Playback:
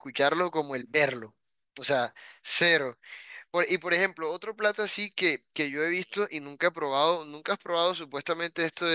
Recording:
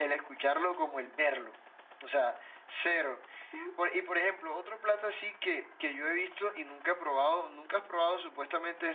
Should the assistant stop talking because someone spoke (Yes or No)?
Yes